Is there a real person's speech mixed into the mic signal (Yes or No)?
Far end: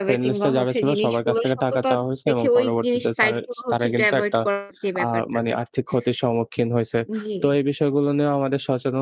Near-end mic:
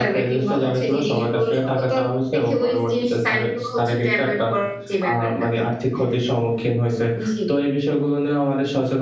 No